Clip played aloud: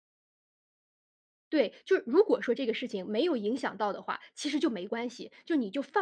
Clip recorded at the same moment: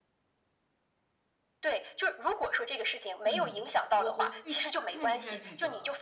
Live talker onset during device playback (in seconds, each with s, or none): 3.2 s